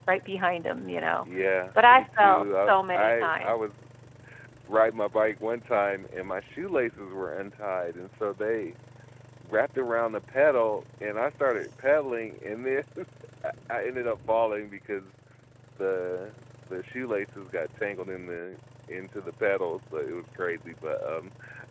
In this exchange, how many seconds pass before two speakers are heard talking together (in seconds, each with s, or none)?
1.8 s